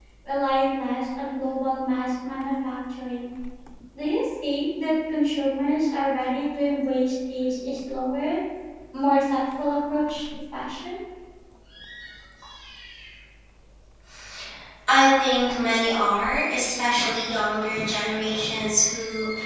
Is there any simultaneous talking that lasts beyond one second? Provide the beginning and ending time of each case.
none

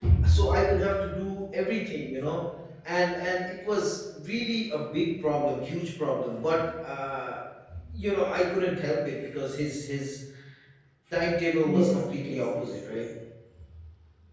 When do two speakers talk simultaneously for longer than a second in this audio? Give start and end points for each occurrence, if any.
11.6-13.0

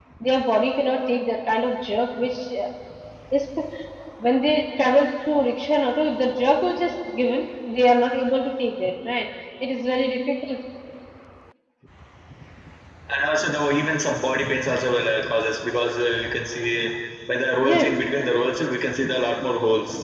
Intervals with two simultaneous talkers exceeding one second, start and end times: none

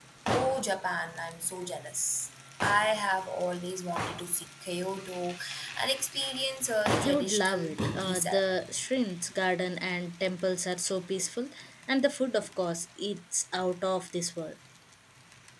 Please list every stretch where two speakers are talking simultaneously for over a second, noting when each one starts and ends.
7.0-8.7

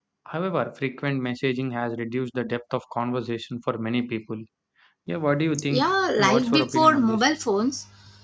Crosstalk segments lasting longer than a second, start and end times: 5.7-7.2

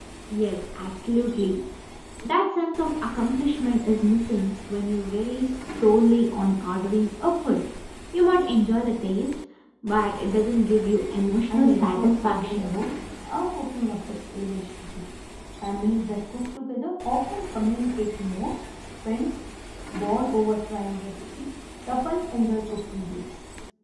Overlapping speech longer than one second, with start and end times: 11.5-12.7

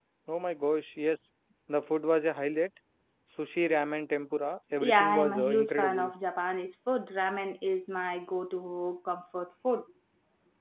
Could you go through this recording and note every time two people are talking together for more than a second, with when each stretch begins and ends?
4.8-6.1

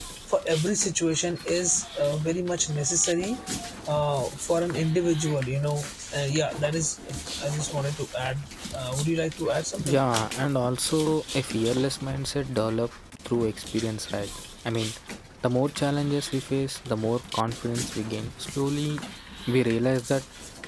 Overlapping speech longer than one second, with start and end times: none

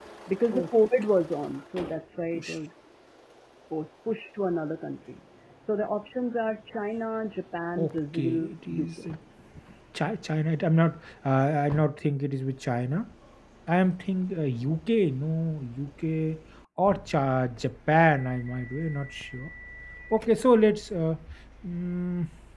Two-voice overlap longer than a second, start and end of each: 7.8-9.1

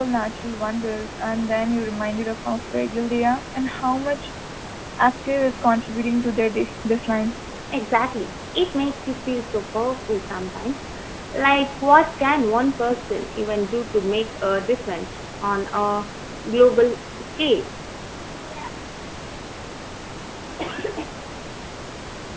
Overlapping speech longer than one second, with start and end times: none

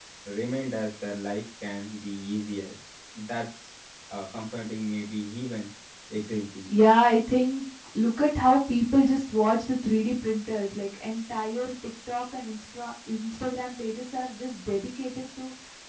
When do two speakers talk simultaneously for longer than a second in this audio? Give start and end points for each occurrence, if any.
none

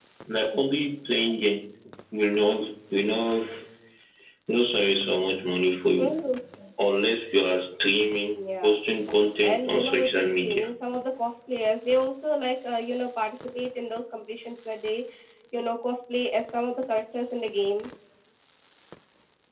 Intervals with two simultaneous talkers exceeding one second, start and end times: 9.4-10.7

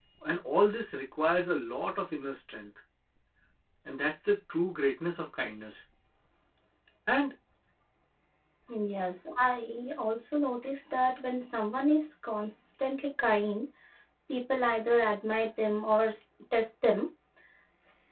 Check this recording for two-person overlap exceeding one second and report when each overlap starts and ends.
none

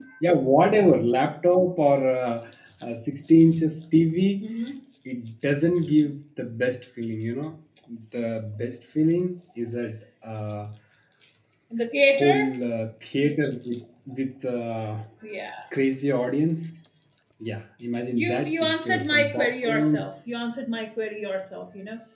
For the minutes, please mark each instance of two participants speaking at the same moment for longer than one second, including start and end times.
18.1-20.0

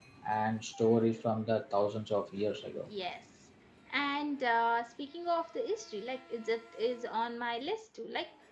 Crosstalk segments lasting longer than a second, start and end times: none

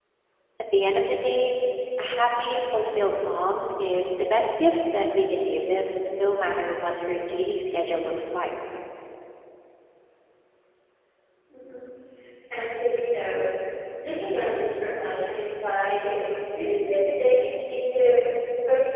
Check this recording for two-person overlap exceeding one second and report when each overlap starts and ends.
none

